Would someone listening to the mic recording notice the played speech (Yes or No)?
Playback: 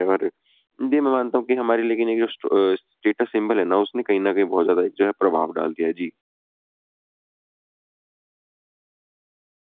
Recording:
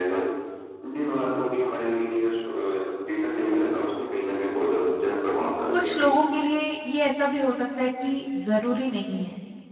Yes